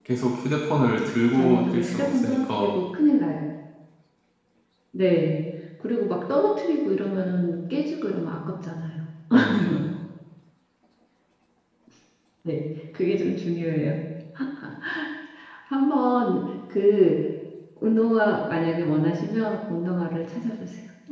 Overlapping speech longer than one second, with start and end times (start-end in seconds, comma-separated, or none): 1.3-2.8